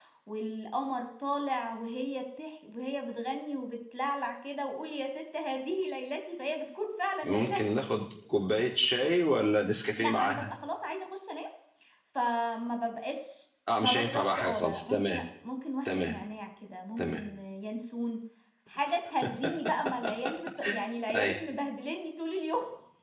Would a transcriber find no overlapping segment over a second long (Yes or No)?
No